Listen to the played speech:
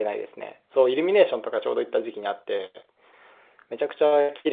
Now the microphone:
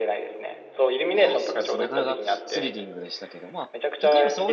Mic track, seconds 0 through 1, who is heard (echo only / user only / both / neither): echo only